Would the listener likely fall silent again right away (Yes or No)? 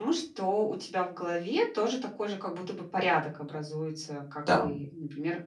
Yes